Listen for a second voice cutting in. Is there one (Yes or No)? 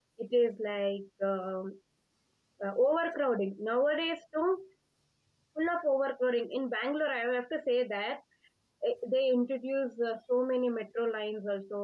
No